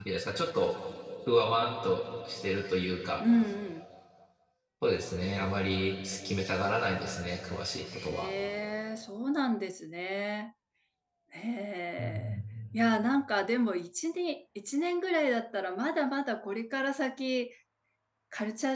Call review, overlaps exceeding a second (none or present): none